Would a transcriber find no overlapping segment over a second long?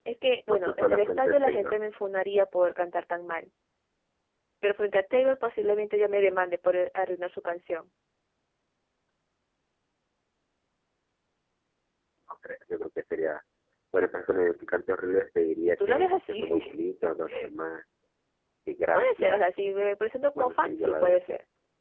No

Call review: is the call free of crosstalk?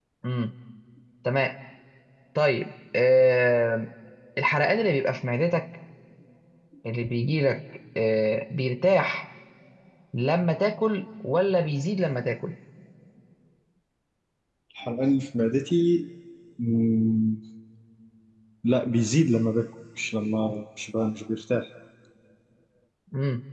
Yes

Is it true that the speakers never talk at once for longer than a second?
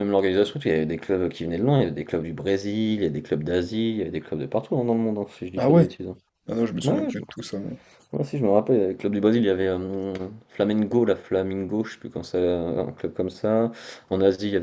Yes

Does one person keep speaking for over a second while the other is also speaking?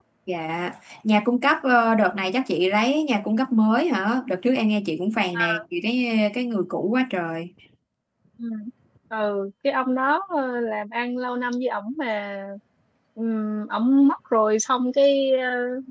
No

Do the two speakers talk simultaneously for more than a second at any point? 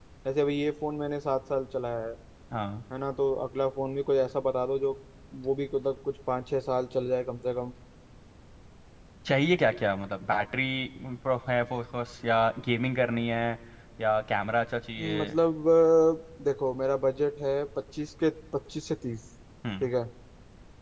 No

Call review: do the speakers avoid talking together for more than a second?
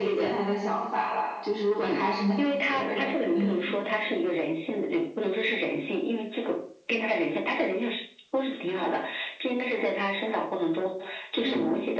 No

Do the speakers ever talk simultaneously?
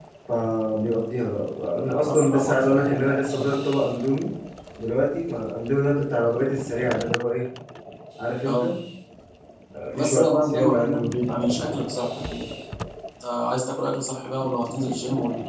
Yes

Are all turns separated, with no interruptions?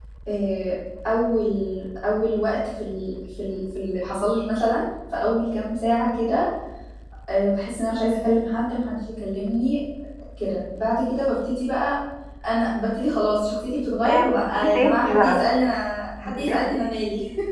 No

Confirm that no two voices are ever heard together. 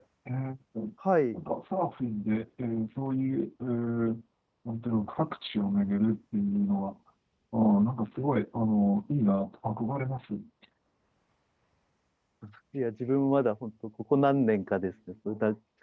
Yes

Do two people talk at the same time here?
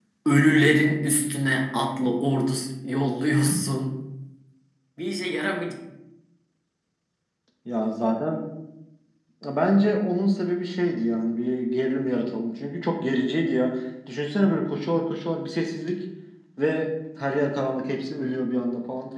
No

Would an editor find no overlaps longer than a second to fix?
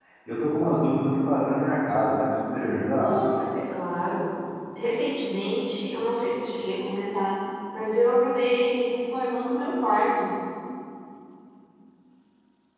Yes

